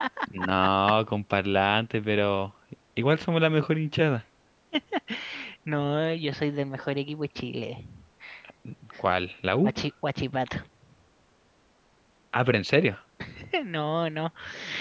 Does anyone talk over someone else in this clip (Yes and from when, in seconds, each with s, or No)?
No